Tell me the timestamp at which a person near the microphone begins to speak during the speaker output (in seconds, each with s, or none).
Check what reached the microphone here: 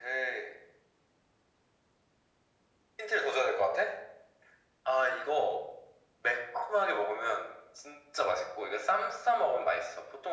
none